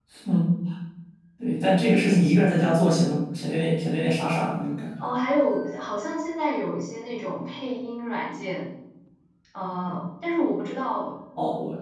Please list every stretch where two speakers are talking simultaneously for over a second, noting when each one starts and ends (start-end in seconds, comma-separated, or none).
none